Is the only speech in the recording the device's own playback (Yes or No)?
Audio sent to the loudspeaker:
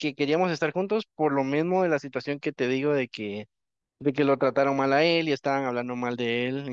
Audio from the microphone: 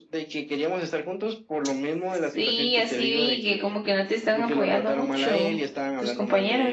No